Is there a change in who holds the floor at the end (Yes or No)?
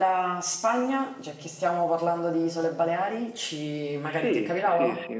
Yes